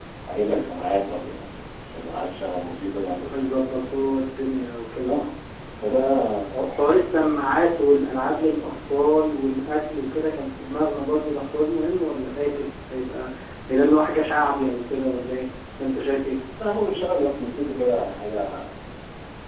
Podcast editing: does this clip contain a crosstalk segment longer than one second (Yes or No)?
No